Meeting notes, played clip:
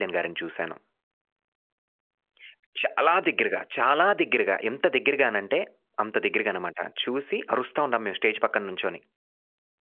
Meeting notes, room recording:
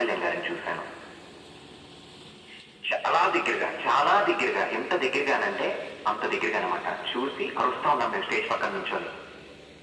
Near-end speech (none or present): none